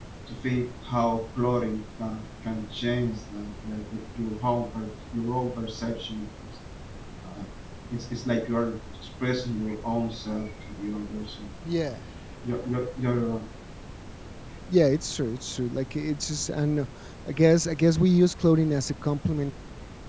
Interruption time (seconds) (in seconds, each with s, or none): none